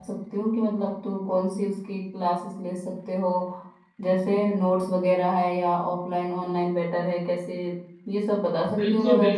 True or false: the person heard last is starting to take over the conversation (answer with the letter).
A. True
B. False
A